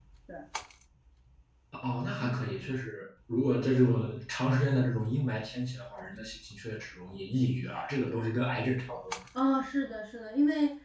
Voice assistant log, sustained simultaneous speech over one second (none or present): none